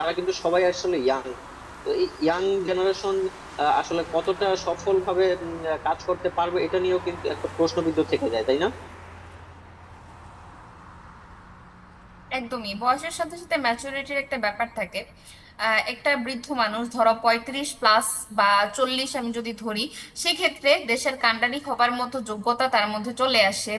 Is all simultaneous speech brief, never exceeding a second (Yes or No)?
Yes